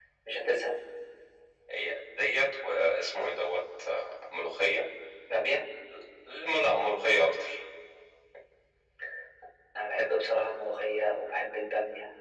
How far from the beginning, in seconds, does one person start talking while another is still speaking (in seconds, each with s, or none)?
none